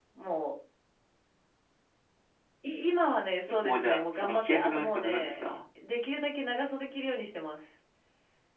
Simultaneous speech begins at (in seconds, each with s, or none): 3.6 s